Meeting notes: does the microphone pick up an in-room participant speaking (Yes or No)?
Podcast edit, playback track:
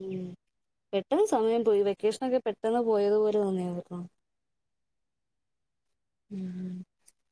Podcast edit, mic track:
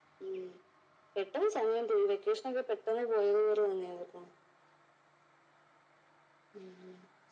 No